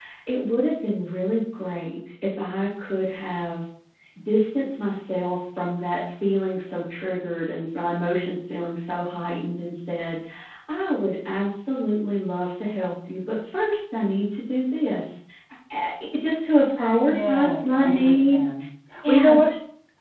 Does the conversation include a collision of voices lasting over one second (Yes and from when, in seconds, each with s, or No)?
Yes, from 17.1 s